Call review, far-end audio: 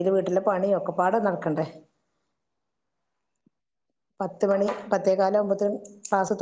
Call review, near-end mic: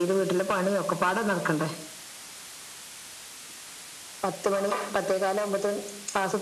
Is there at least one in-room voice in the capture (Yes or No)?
No